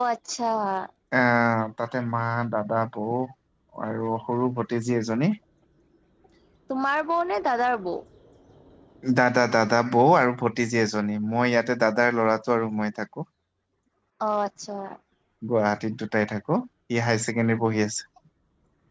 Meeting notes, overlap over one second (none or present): none